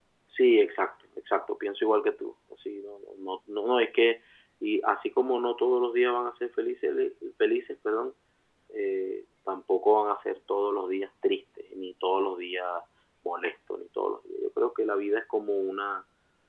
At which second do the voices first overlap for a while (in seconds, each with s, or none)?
none